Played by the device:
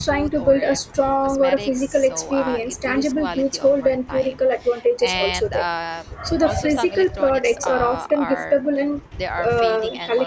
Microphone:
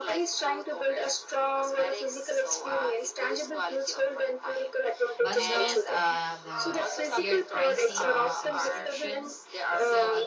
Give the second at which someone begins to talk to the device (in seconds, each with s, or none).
5.2 s